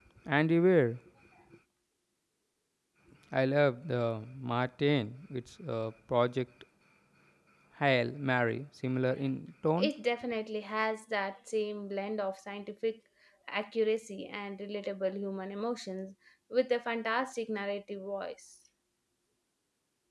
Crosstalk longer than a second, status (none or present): none